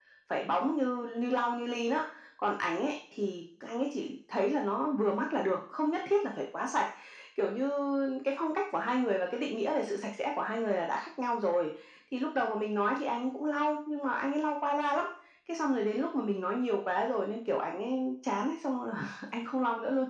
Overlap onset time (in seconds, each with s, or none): none